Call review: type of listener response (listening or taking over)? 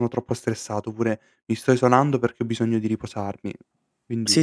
taking over